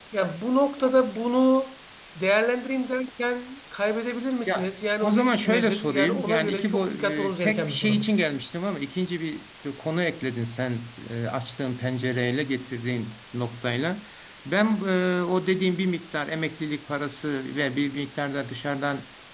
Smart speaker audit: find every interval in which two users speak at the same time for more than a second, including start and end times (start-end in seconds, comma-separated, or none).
4.5-8.1